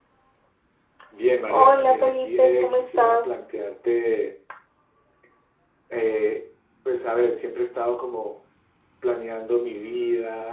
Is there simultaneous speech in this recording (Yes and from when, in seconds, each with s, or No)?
Yes, from 1.5 s